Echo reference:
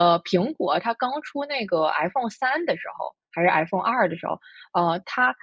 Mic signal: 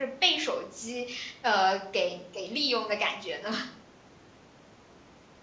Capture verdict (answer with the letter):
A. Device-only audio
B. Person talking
B